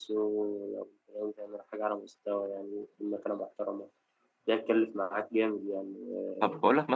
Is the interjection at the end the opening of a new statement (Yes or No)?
Yes